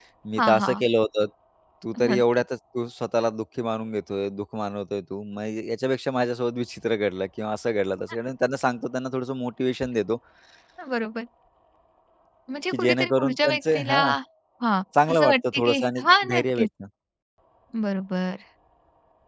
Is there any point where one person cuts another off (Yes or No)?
Yes